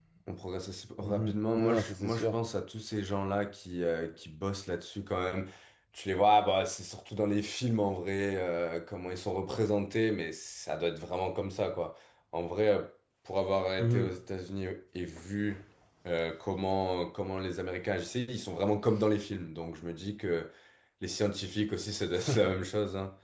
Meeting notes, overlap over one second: present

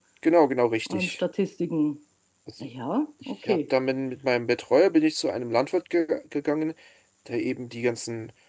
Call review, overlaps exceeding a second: none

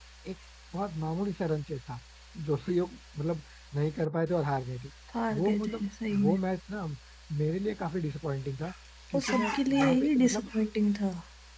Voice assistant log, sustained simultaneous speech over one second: present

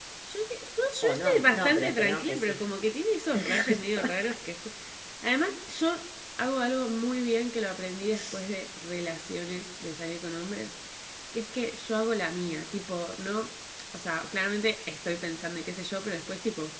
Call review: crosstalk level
present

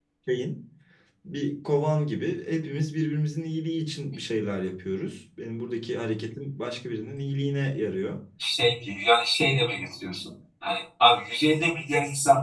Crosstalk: none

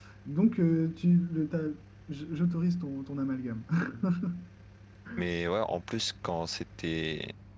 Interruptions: none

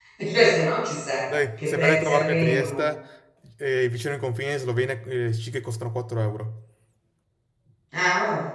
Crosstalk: present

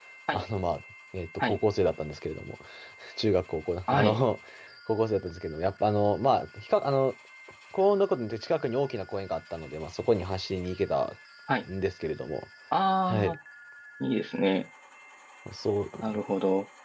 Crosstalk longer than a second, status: none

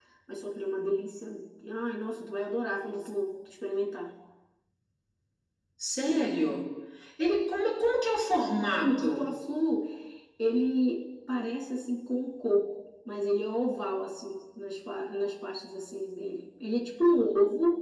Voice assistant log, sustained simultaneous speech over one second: none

